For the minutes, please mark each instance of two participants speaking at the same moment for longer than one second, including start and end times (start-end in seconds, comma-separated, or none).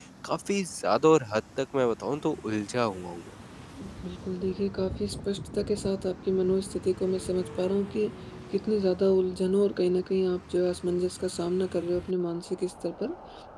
none